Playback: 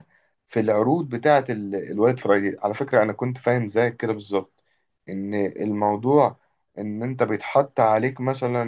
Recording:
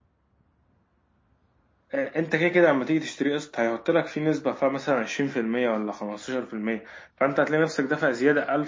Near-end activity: present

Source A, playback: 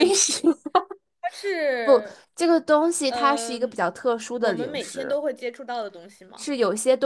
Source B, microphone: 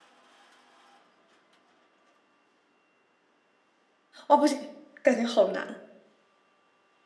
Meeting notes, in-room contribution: present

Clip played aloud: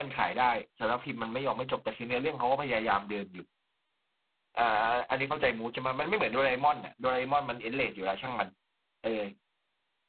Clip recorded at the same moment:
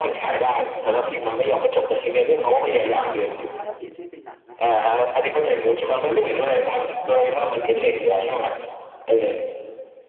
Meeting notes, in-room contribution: present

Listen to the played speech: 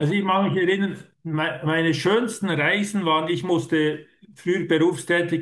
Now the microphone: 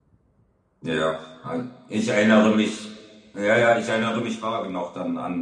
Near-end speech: present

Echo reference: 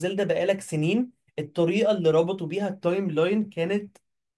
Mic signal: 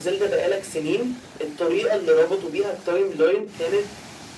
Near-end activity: none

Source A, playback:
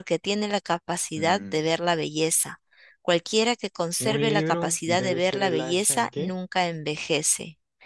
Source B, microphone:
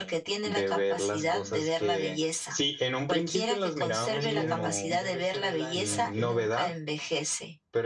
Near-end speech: present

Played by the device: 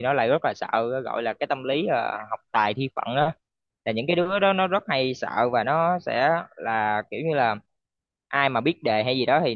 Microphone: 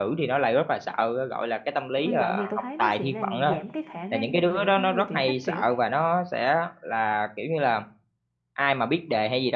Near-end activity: present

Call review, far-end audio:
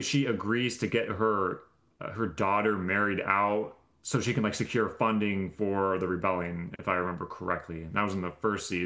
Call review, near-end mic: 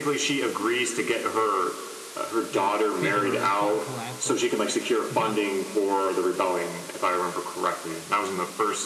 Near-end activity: present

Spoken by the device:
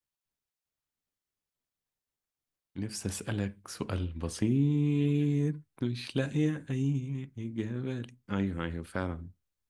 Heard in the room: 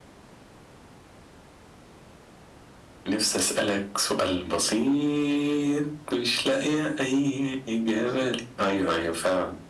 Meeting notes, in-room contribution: present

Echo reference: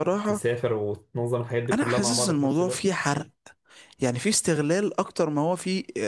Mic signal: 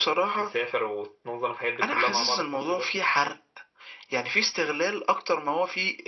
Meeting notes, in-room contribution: none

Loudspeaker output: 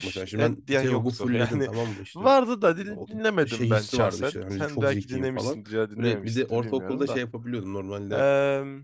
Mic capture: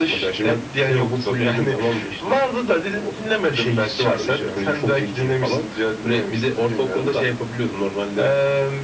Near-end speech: none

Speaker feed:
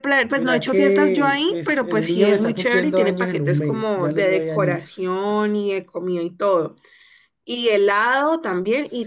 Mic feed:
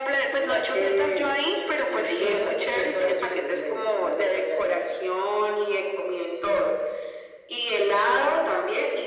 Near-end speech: none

